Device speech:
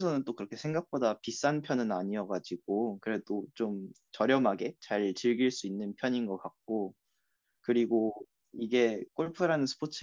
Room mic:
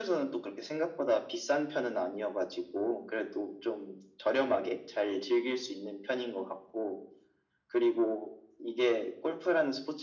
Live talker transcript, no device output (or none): none